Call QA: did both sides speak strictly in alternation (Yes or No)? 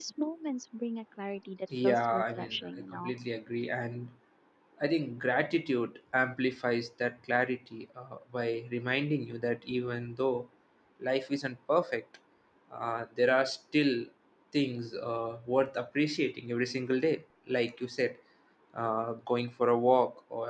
No